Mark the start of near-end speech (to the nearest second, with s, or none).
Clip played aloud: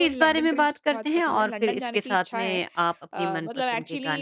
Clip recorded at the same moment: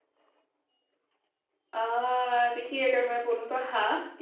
2 s